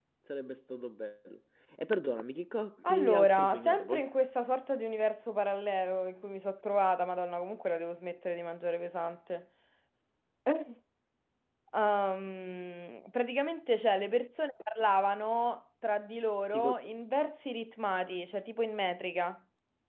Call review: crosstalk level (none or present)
present